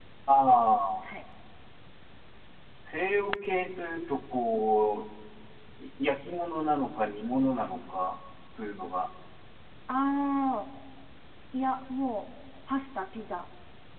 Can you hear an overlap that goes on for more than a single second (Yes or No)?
No